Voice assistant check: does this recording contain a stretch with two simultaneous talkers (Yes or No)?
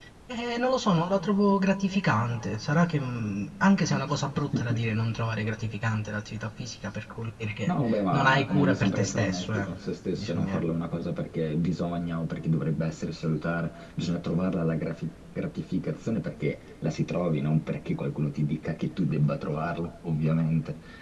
Yes